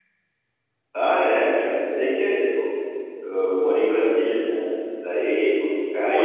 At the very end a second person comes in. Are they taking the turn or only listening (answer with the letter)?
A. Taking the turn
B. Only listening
A